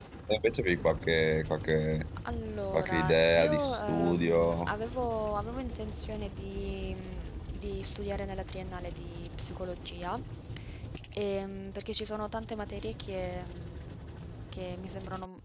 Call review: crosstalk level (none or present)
present